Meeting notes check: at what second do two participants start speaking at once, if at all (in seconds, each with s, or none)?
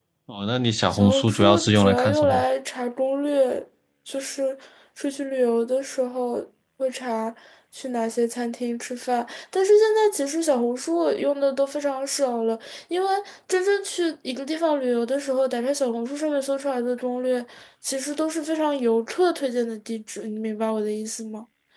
0.9 s